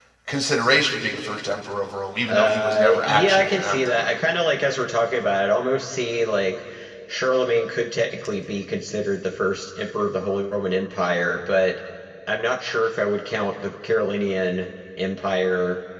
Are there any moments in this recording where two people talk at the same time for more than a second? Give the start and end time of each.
2.3-4.1

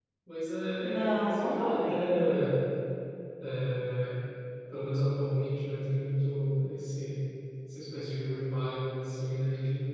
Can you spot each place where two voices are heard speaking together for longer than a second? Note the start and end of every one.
1.1-2.4

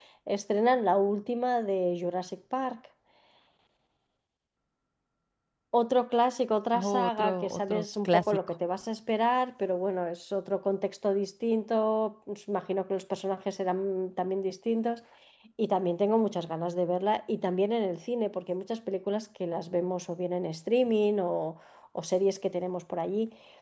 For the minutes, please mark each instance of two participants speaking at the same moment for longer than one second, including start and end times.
6.7-8.4

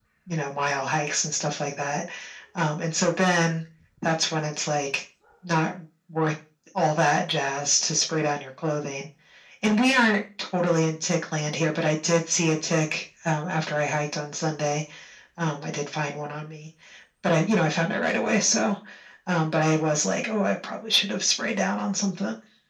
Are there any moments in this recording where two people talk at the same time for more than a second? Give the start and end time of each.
none

